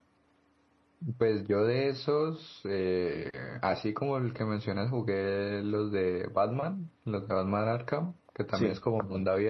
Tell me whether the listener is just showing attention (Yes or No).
Yes